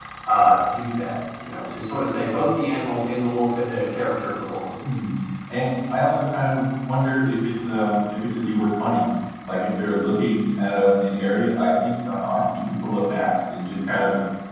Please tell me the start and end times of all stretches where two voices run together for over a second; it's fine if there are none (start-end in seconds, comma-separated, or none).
none